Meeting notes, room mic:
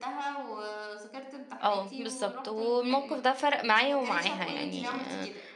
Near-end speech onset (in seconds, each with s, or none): 1.6 s